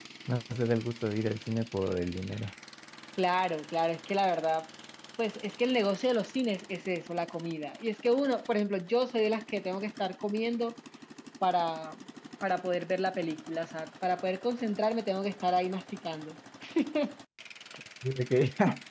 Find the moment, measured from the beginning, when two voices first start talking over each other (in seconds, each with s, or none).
none